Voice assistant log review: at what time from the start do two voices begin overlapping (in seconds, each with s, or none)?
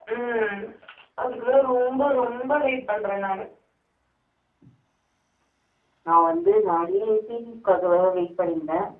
none